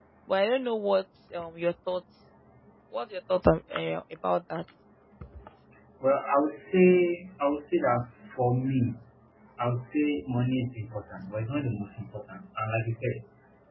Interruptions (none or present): none